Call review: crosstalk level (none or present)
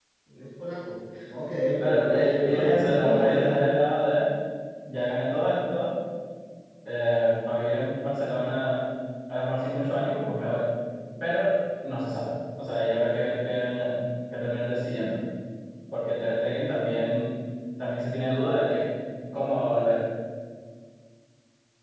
present